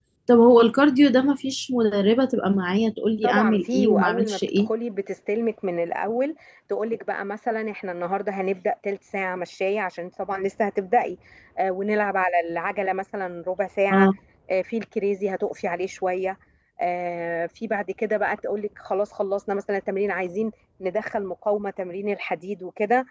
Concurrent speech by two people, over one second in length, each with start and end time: 3.2-4.7

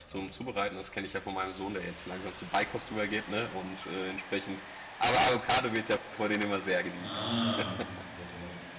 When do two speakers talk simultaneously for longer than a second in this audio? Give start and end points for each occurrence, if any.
none

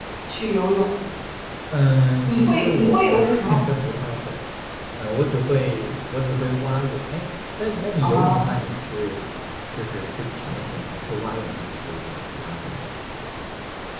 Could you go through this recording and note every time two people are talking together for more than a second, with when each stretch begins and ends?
2.3-3.6

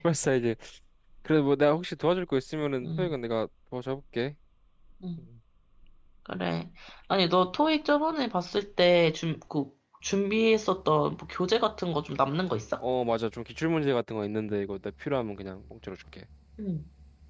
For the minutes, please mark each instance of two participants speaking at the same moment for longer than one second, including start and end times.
none

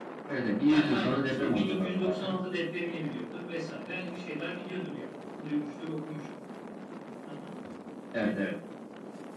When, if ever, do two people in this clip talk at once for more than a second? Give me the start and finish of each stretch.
0.6-2.4

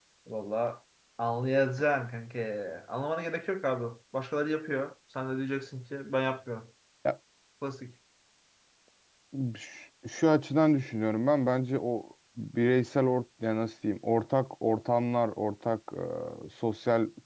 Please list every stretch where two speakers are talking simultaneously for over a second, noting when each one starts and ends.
none

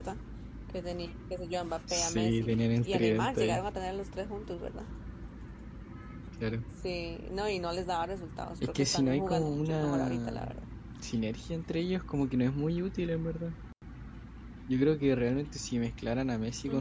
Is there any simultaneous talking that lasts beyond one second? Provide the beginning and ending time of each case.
1.9-3.6, 8.6-10.4

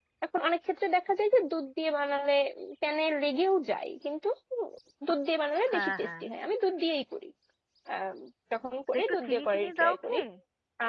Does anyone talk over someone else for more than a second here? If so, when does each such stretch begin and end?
8.9-10.2

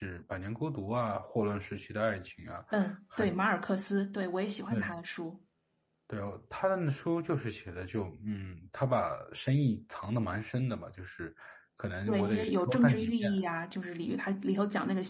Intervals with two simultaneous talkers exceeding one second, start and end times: 12.1-13.3

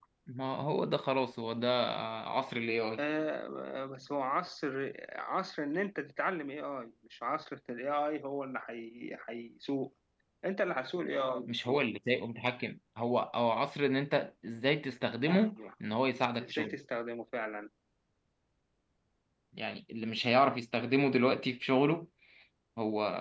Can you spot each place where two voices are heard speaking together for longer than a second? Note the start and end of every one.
none

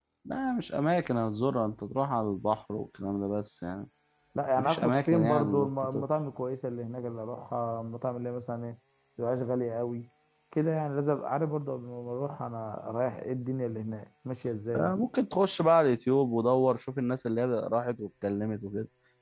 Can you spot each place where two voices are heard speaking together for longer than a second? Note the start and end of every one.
4.6-6.0

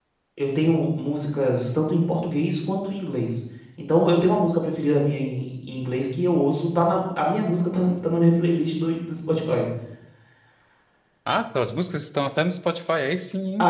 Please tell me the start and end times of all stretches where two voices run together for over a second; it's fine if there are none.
none

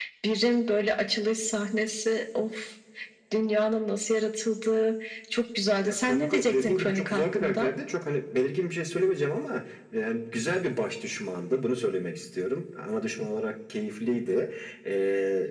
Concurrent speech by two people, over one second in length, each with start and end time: 5.8-7.7

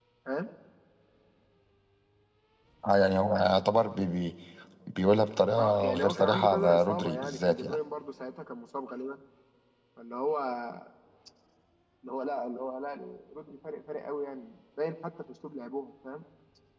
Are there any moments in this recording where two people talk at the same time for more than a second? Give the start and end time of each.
5.6-7.8

